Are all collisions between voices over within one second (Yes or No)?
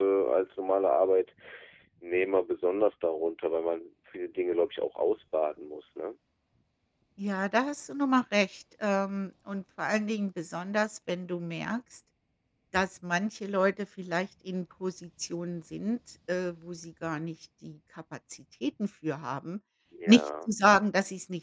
Yes